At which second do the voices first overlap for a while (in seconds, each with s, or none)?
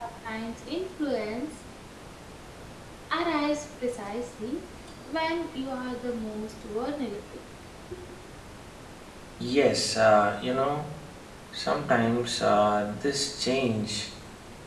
none